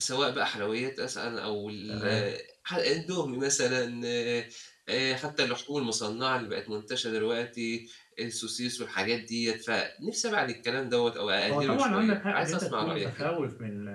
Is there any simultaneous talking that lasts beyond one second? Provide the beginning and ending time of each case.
11.5-13.3

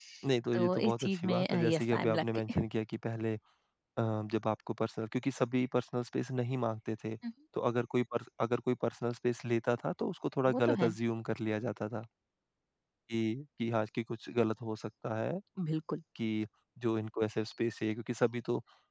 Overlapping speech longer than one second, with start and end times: 0.5-2.4

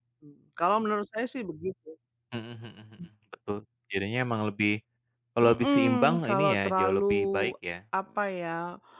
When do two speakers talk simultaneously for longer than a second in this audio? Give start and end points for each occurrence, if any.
5.4-7.5

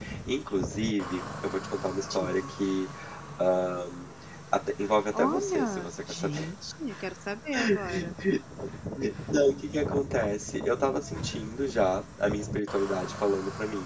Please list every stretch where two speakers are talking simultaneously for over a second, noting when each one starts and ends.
5.1-6.5

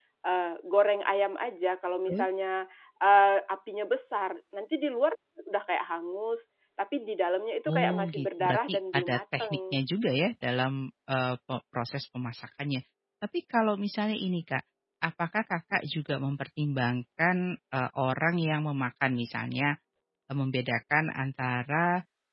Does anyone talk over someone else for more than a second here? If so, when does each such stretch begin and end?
7.7-9.8

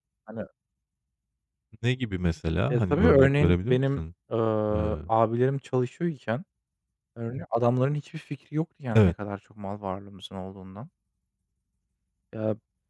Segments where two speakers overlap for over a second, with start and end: 2.7-4.0

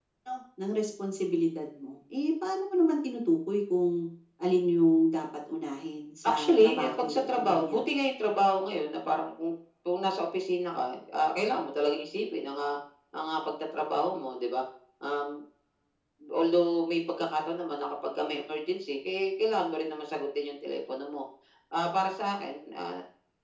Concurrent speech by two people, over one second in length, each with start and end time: 6.2-7.8

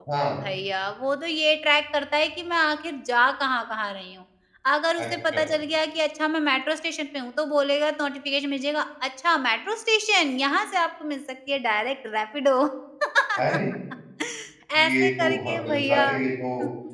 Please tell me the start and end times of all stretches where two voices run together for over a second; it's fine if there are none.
14.8-16.2

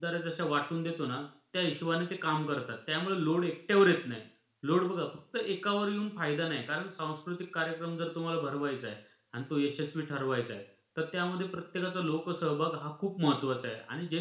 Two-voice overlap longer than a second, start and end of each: none

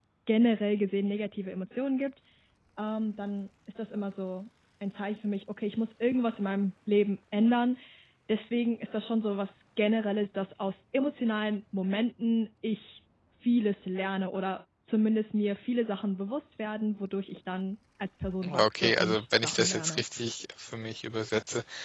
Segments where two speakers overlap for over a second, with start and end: 18.5-20.0

